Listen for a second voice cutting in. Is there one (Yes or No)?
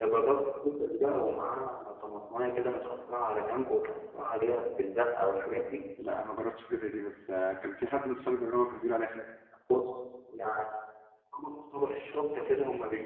No